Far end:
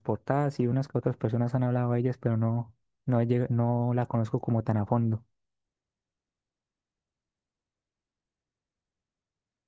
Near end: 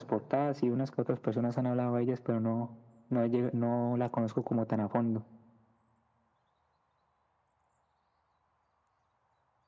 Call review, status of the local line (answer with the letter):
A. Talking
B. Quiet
B